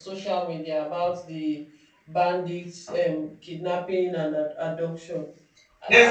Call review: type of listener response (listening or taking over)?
taking over